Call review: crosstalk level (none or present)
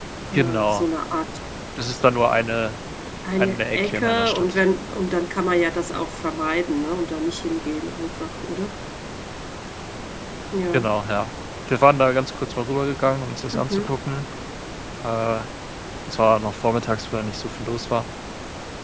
present